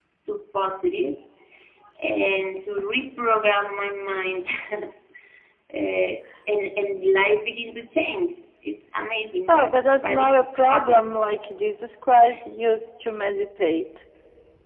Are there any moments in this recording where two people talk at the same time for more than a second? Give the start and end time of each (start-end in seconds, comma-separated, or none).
9.5-11.2